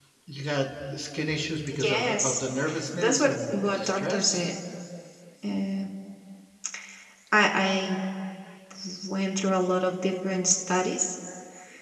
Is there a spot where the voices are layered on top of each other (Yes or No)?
Yes